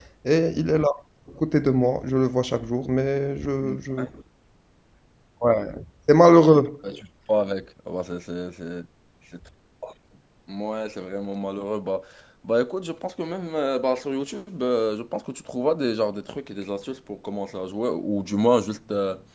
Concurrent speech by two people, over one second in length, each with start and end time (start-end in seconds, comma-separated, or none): none